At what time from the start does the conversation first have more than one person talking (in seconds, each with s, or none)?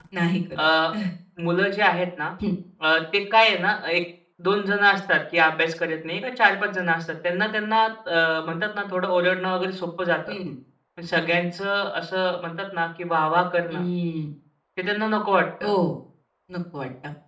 none